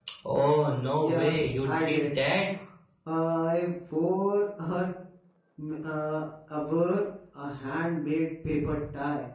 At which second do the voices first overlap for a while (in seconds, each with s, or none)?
1.0 s